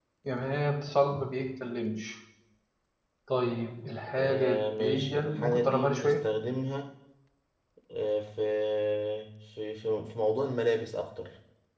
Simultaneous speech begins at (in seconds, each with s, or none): 4.2 s